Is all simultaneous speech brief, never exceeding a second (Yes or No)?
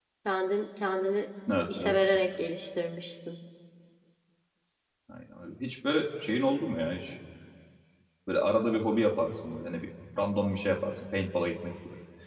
Yes